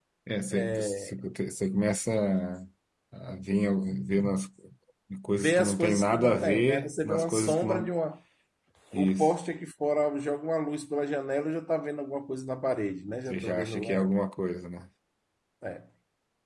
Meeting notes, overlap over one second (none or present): present